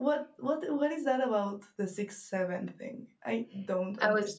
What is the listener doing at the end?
taking over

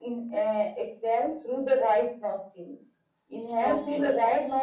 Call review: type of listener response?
listening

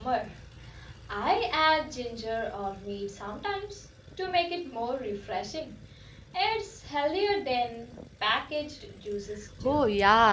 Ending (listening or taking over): taking over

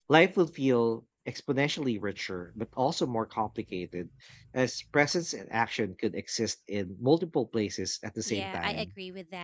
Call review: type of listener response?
taking over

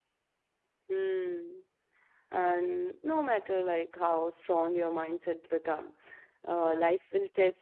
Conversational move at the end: listening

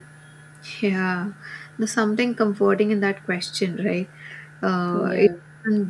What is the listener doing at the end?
listening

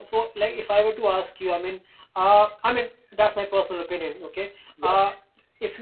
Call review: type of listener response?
listening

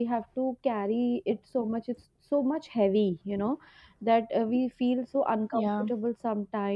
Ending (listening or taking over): listening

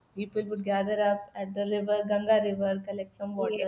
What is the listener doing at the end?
listening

